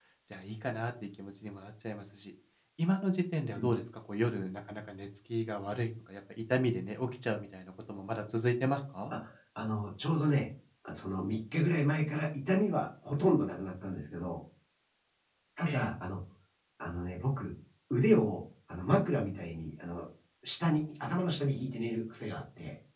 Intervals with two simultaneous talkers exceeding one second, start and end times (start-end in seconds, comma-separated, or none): none